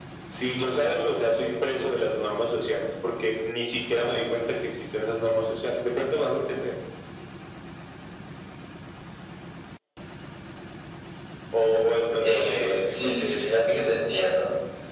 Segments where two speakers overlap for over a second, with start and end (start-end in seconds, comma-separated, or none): 12.2-13.8